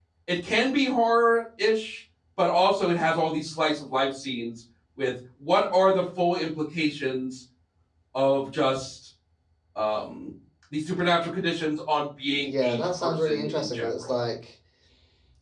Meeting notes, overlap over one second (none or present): present